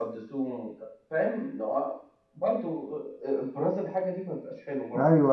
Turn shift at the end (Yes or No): Yes